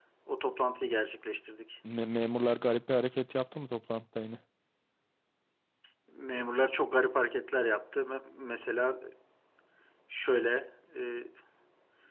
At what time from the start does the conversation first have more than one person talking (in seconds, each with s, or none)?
none